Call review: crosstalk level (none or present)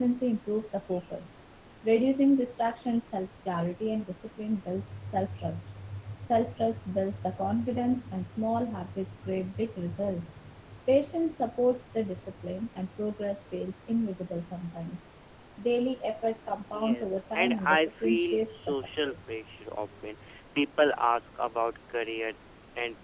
present